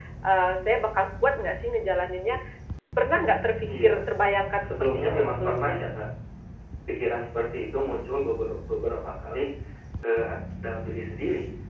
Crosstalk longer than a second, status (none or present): present